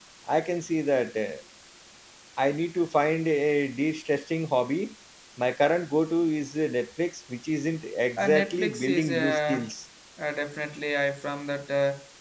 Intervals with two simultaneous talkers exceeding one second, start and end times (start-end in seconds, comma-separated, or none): 8.2-9.7